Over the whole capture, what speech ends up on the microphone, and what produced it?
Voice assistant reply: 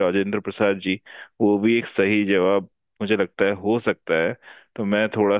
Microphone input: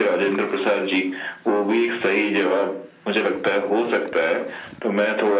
echo only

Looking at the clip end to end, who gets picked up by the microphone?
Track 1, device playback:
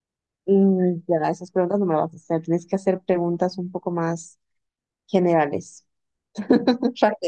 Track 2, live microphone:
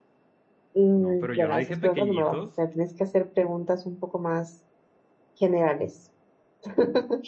both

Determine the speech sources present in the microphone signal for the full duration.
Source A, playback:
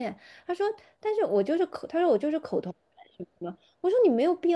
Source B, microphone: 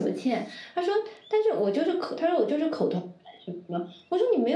echo only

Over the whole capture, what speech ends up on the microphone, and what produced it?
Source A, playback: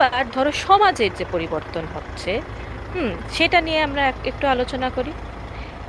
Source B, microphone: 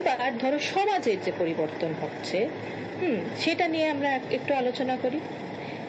echo only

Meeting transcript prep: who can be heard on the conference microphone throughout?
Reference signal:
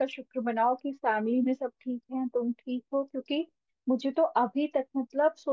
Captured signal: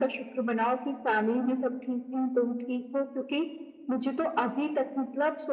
echo only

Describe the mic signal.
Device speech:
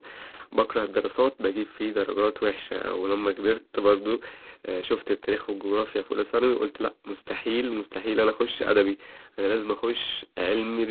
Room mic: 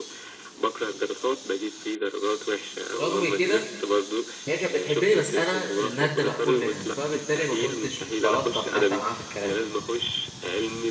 both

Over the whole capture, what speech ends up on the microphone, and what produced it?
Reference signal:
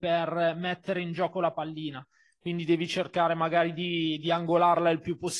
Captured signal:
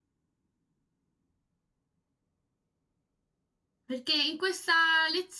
user only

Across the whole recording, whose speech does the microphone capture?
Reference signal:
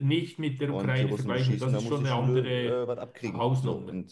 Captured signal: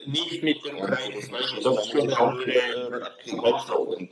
echo only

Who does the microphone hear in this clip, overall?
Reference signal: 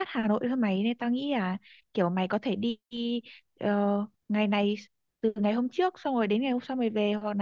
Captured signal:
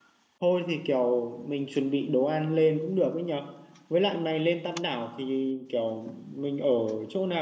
user only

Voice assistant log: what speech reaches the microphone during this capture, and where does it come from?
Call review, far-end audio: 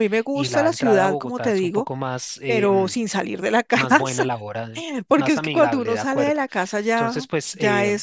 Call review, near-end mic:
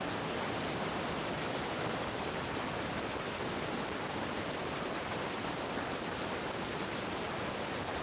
neither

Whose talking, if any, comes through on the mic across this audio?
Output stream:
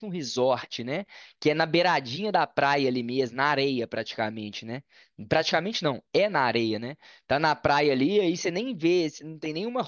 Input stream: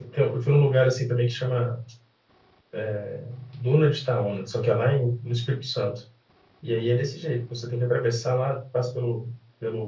user only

